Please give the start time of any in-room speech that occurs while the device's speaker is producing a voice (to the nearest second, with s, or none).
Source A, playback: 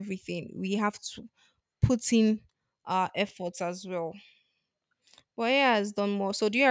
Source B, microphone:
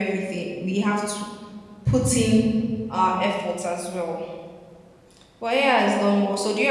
none